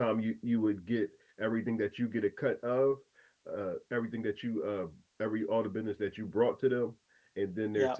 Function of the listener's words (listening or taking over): listening